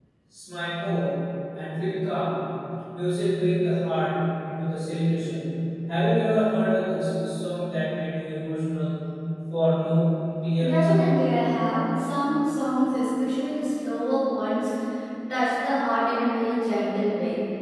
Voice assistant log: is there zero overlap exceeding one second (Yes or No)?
Yes